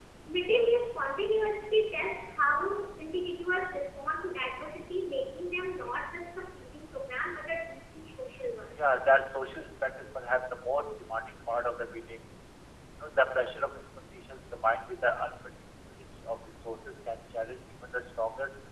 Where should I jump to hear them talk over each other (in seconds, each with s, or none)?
none